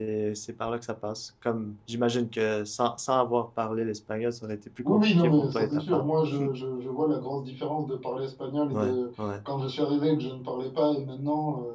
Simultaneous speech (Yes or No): Yes